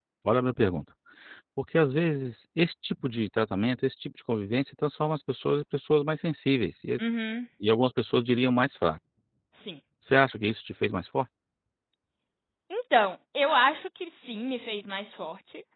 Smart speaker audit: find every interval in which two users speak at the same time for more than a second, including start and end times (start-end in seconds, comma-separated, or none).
none